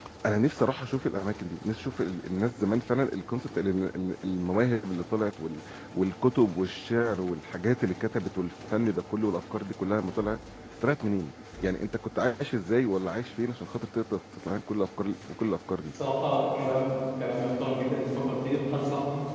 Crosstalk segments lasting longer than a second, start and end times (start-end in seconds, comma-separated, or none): none